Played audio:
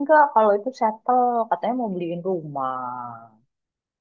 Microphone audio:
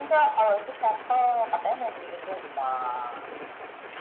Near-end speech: none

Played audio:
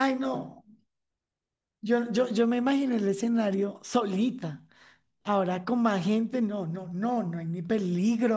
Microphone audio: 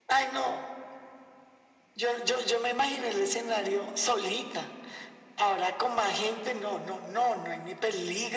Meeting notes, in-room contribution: none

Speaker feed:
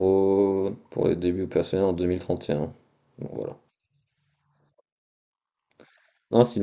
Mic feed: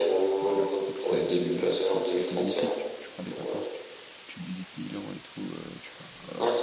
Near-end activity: present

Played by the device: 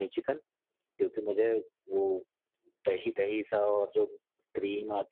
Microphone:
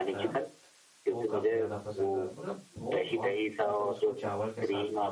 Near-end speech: present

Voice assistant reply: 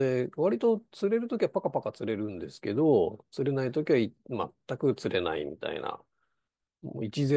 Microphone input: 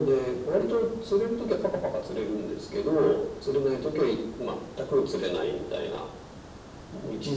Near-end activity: none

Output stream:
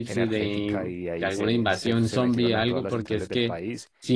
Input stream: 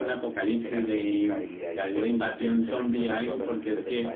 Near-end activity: none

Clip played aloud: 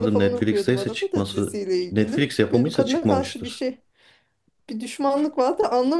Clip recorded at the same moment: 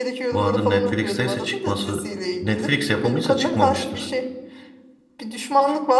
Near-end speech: none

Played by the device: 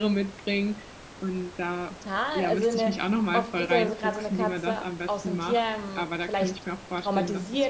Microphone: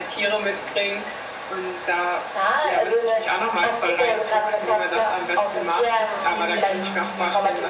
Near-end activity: present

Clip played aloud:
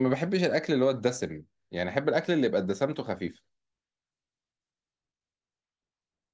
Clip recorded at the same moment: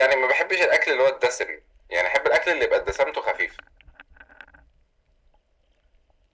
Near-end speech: none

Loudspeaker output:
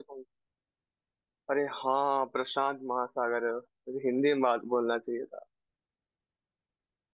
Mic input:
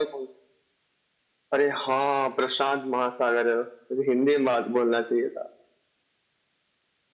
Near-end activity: none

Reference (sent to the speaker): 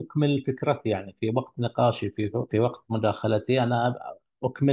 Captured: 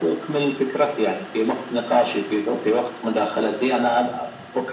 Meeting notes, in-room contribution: none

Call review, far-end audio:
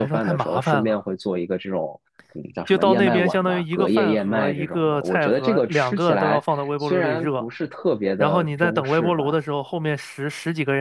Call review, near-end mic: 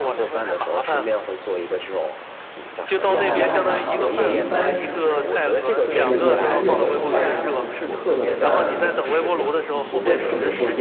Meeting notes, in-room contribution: present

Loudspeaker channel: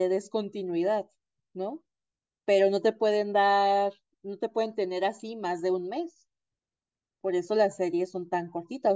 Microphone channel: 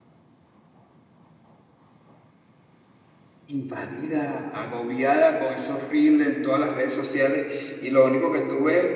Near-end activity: present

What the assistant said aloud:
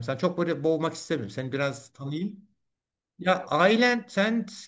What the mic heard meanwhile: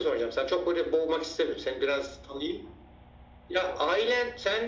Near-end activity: none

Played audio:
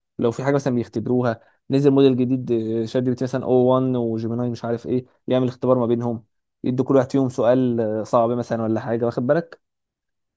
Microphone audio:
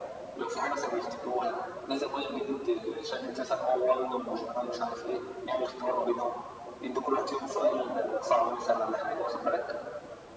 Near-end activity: none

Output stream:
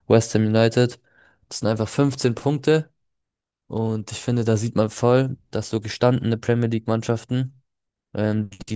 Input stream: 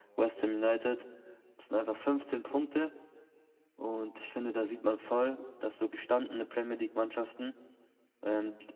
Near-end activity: none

